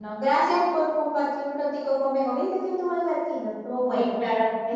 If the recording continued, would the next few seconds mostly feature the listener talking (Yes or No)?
Yes